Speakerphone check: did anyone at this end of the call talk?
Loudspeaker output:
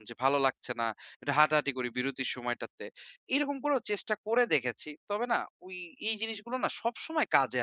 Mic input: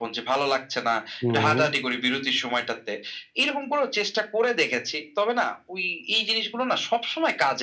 Yes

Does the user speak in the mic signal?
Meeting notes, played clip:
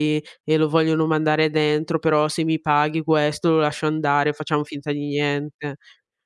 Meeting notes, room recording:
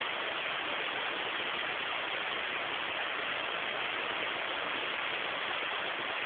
No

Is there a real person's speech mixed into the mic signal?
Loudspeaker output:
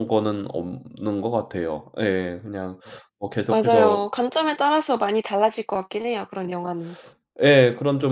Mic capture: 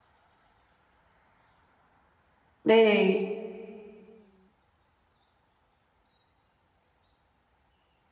Yes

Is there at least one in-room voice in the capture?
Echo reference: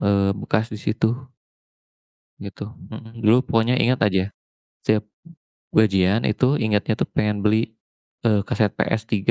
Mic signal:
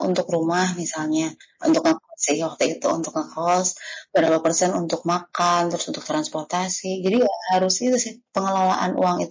Yes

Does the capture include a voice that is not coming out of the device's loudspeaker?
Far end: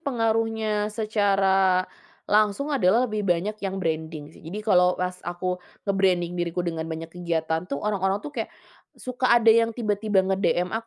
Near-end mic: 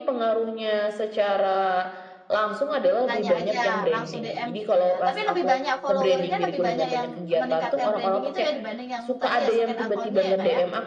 Yes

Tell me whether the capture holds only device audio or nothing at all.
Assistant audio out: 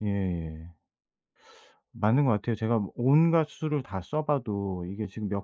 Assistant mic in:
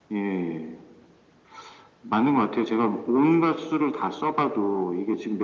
Yes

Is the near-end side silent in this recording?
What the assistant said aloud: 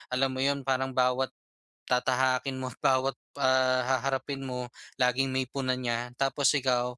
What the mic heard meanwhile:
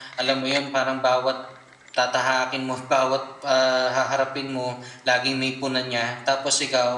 Yes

